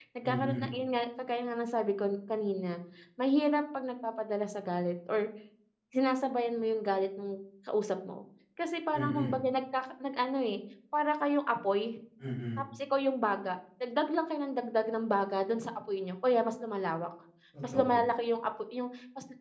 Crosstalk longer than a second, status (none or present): none